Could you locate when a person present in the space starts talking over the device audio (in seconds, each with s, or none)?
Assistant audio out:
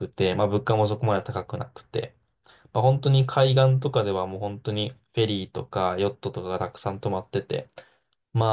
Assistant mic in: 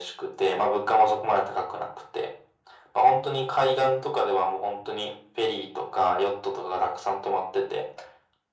none